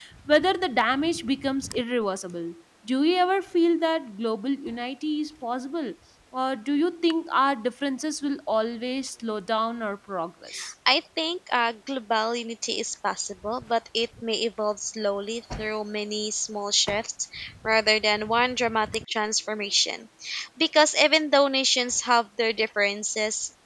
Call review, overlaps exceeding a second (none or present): none